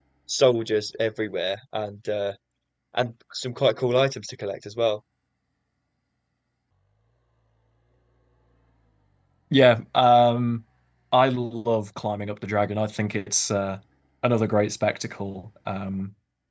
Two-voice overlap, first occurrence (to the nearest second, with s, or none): none